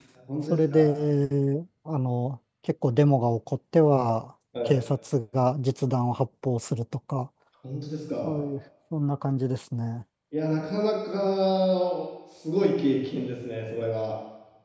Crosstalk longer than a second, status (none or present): none